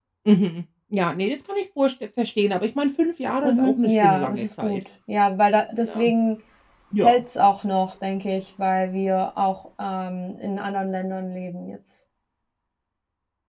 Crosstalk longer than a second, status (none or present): present